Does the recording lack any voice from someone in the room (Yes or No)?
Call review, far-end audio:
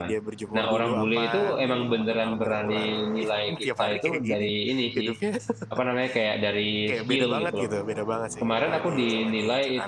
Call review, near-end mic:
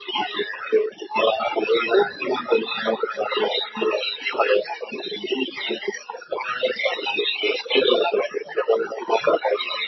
Yes